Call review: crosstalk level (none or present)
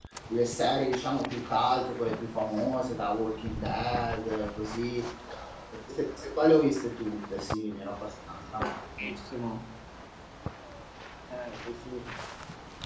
none